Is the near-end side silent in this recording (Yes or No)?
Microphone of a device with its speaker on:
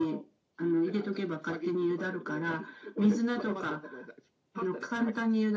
Yes